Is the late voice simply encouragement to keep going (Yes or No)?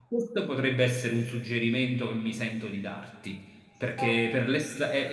Yes